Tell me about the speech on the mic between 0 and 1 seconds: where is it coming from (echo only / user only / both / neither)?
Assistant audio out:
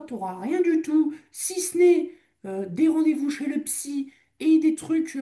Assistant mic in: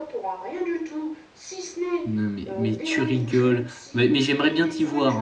echo only